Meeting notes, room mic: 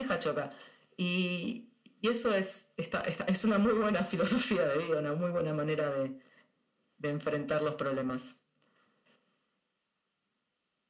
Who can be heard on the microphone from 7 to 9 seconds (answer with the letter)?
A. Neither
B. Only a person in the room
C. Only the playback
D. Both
C